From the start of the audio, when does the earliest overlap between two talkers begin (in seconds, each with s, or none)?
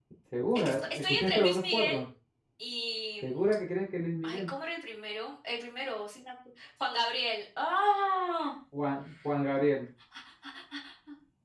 0.6 s